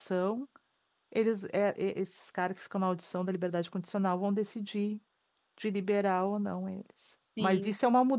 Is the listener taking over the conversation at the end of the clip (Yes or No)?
No